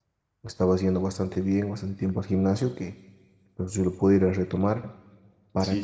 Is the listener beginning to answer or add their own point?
No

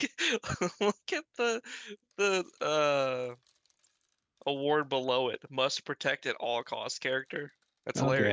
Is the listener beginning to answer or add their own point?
Yes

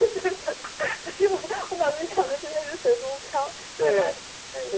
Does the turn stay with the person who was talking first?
No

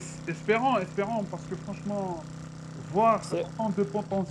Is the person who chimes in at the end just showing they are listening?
Yes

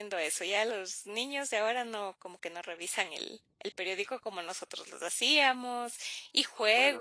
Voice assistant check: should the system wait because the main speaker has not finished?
No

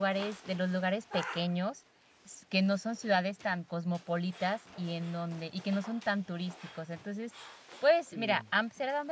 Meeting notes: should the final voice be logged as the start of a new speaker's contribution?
No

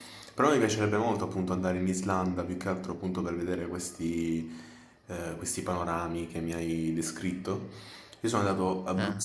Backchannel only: Yes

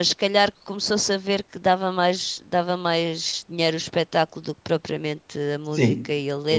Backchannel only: No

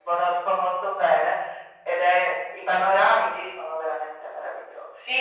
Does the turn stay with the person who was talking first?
No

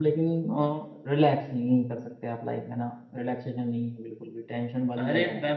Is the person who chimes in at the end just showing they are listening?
No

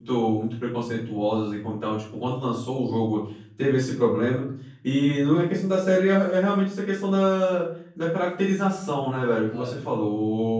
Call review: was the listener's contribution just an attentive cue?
Yes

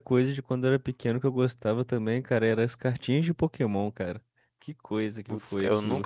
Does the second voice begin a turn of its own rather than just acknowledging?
Yes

